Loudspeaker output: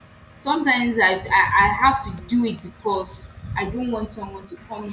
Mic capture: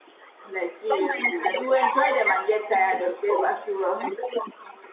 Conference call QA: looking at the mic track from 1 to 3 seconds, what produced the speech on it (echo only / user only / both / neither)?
both